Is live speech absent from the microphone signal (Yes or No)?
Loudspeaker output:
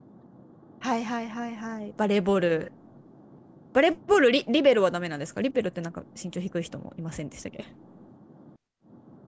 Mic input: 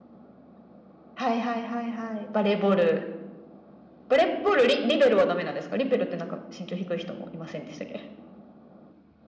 Yes